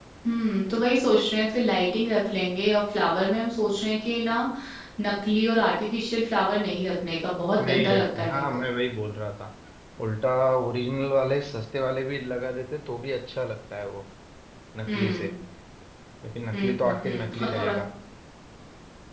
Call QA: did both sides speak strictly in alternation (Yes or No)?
No